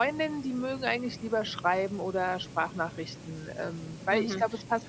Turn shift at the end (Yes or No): Yes